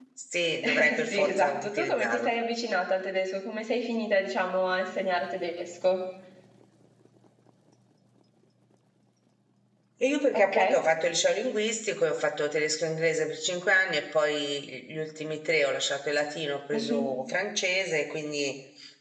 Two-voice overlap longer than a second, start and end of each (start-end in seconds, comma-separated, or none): 0.7-2.3